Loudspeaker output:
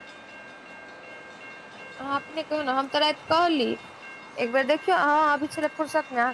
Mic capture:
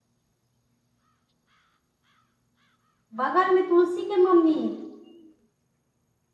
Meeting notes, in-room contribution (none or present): present